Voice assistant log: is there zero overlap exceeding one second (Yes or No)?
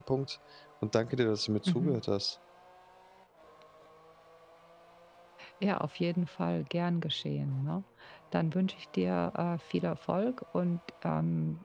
Yes